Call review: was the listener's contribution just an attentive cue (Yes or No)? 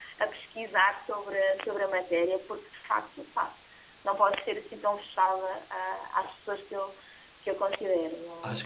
No